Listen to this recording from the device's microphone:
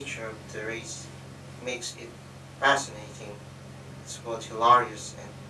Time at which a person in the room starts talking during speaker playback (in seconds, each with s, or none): none